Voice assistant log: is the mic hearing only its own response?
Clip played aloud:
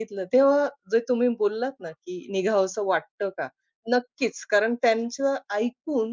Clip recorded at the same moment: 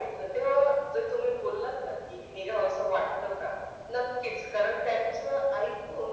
Yes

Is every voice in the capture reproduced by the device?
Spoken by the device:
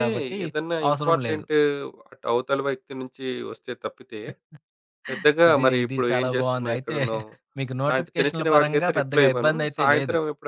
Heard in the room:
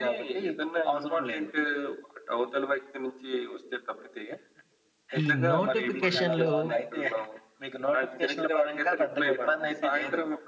No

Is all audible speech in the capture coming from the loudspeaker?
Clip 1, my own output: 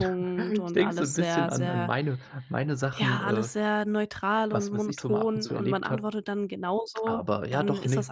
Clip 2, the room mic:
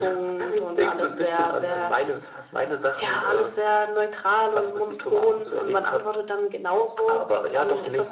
Yes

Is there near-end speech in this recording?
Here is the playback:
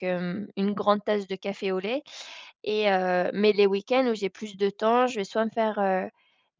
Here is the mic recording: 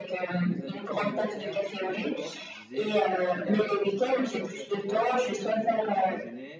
Yes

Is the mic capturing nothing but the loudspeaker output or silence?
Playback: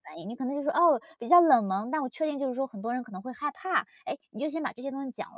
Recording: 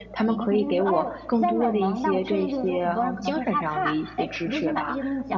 No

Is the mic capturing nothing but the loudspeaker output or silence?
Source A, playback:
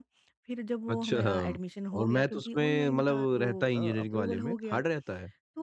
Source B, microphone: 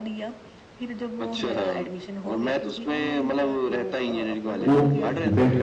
No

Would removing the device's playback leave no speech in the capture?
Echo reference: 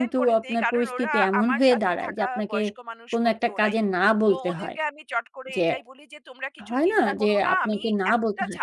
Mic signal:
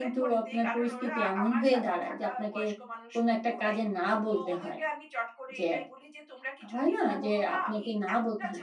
Yes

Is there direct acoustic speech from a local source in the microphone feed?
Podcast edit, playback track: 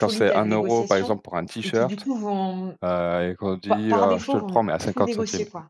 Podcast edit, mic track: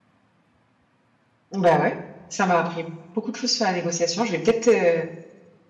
Yes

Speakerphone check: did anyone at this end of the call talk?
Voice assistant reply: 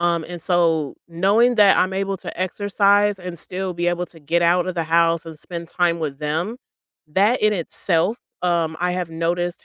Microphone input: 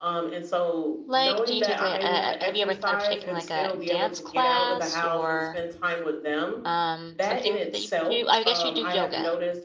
Yes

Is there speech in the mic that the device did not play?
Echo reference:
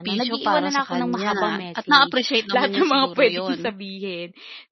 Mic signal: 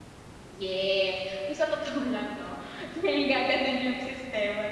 Yes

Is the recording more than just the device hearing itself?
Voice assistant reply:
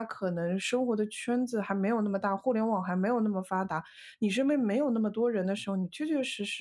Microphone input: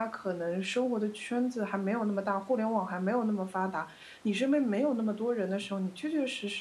No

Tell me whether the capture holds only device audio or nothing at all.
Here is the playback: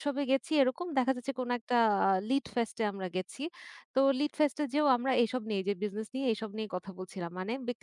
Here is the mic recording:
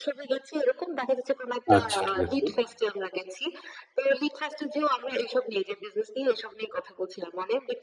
No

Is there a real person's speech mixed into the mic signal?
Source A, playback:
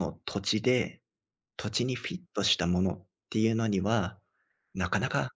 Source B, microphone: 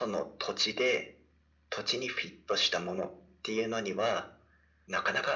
No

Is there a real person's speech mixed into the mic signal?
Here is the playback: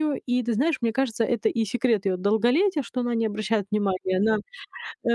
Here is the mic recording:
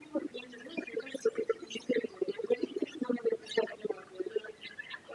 No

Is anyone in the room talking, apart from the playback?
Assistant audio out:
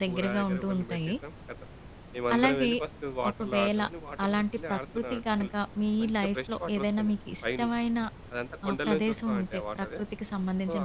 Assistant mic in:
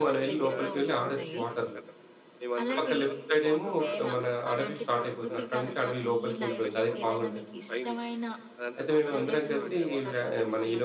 Yes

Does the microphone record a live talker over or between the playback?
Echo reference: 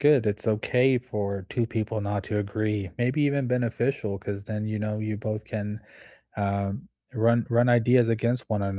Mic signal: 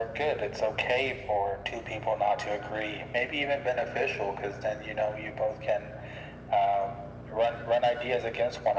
No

